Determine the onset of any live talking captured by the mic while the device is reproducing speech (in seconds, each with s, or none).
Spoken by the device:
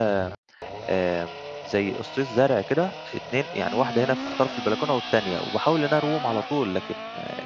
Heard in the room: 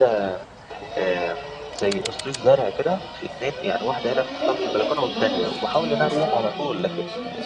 4.3 s